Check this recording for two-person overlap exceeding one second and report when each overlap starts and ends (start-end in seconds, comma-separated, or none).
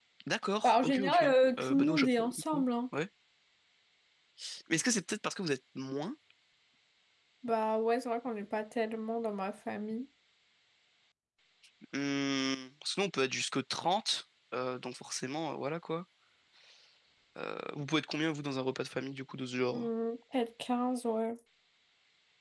0.6-2.6